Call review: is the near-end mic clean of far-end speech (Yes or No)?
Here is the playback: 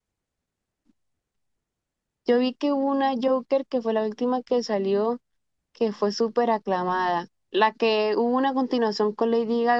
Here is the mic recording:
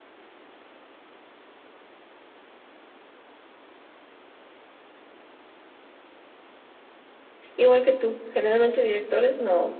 Yes